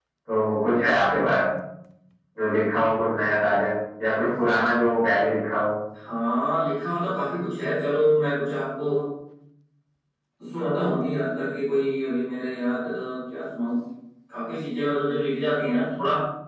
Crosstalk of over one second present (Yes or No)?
No